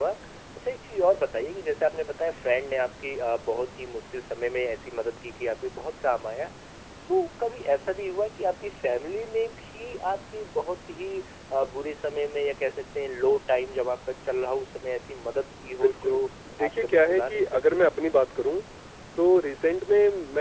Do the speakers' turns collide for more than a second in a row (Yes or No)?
Yes